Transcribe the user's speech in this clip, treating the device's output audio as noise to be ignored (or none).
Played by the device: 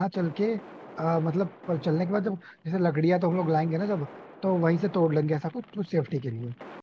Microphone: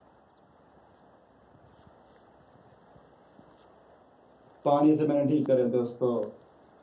पानी से मैंने ठीक करे थे उसको